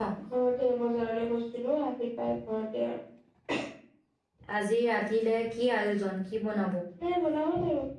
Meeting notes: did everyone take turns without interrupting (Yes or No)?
Yes